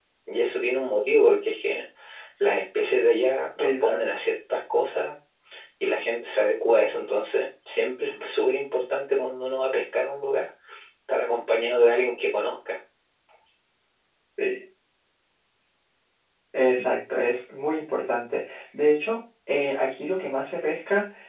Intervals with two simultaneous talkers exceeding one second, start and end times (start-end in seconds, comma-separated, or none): none